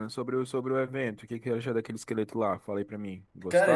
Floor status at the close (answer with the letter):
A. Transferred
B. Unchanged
B